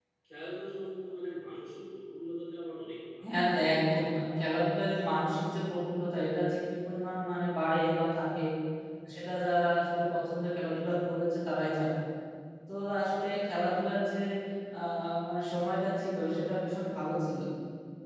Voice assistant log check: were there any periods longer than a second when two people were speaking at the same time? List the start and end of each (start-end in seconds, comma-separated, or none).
none